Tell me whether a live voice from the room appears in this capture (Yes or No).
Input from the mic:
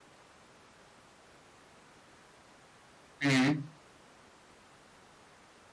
Yes